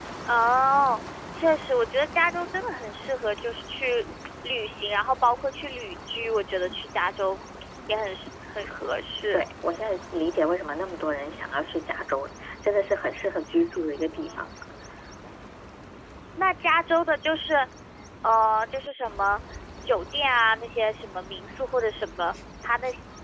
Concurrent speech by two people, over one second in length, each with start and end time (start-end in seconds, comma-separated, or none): none